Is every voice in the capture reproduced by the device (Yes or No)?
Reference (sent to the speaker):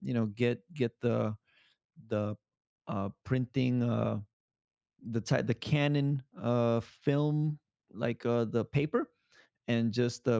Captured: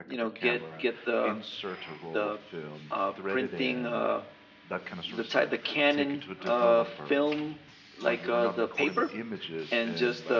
No